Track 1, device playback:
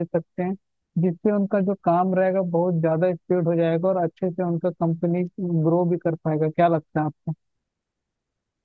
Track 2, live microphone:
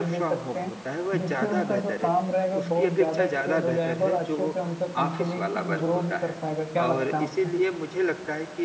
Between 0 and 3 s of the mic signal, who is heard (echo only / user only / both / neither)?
both